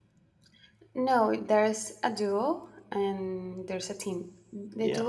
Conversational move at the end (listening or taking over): listening